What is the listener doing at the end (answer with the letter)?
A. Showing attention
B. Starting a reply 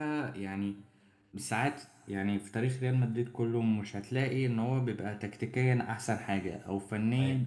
A